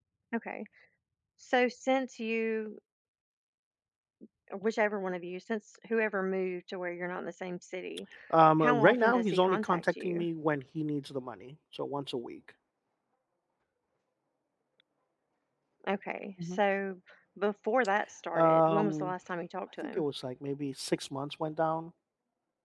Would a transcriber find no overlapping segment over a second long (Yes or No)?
No